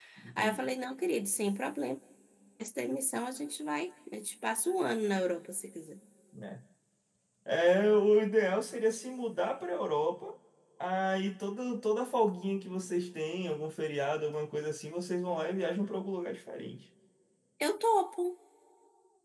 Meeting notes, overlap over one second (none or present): none